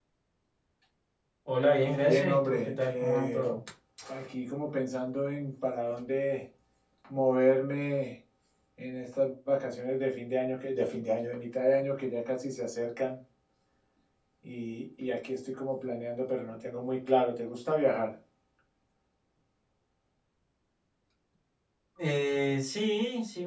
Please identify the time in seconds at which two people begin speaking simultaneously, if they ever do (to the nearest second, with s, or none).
2 s